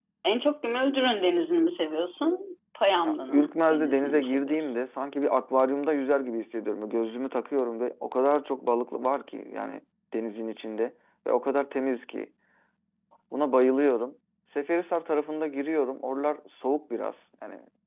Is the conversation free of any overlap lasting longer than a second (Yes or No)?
No